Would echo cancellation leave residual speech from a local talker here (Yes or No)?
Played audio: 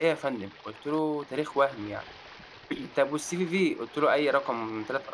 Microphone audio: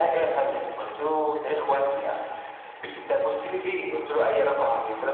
No